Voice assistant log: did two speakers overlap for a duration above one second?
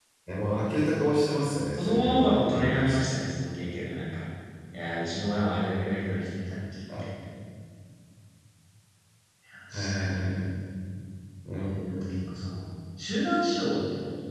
Yes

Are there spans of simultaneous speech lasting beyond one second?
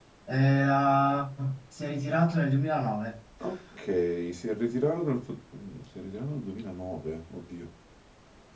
No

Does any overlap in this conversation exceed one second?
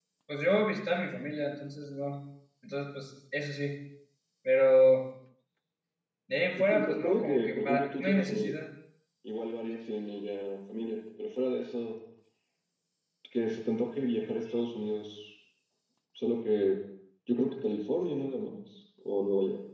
Yes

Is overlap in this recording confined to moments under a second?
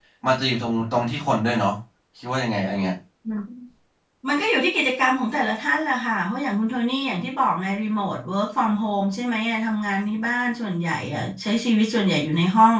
Yes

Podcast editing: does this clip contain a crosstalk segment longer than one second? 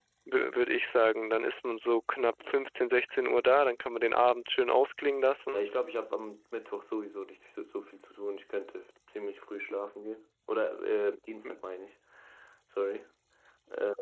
No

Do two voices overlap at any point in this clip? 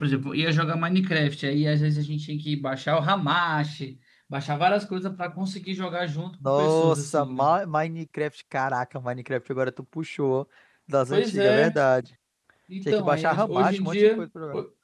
Yes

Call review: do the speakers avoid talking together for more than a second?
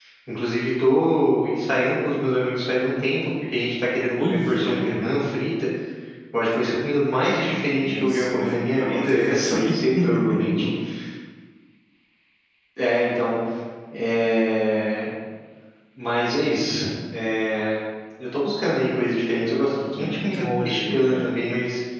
No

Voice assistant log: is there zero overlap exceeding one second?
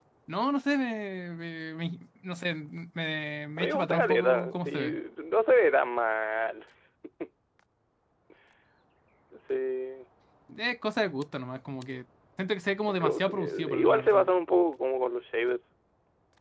No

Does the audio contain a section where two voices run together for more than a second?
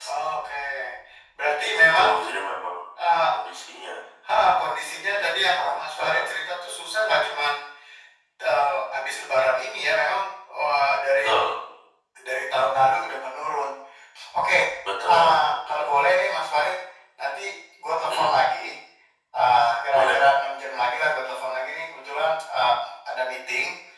Yes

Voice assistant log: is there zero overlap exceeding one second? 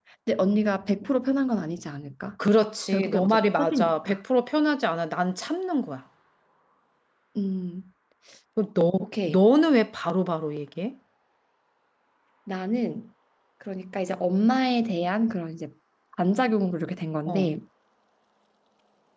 No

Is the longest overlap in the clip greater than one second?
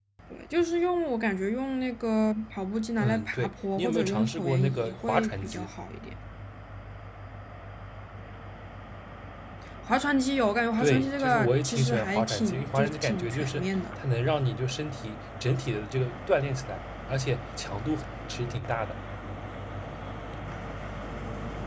Yes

